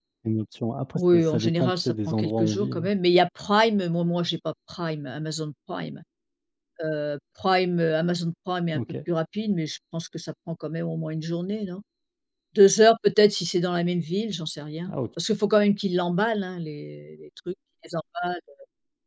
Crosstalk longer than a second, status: present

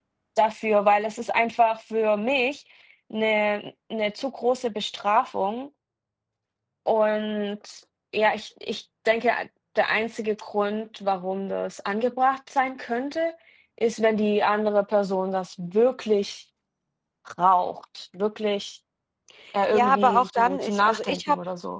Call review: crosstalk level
present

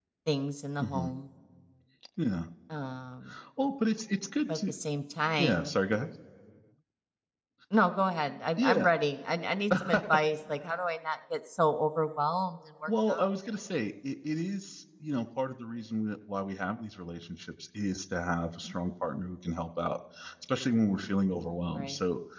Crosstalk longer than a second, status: none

